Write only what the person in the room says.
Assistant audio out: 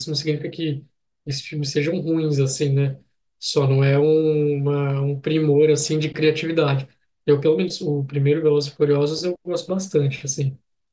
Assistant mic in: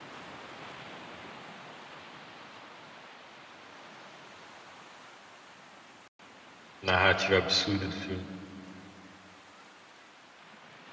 Narrativa absurda do filme.

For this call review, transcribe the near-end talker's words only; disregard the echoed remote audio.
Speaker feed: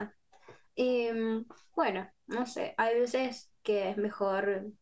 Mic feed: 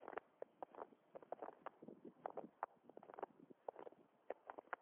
none

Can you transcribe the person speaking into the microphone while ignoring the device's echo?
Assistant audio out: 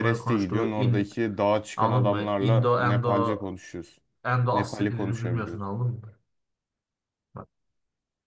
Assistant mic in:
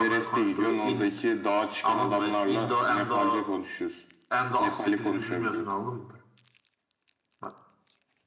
none

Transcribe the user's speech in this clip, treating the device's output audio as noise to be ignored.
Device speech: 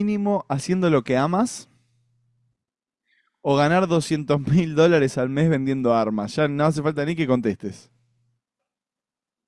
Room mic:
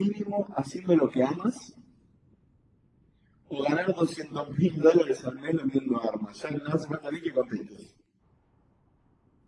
none

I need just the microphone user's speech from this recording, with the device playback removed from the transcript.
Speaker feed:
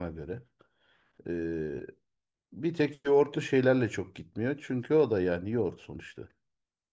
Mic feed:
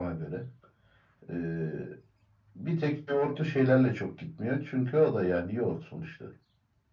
none

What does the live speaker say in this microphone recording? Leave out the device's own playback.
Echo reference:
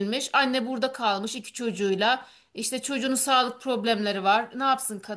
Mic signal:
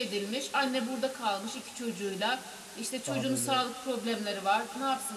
daha böyle

